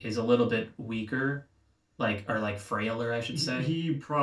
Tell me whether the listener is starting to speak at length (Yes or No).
Yes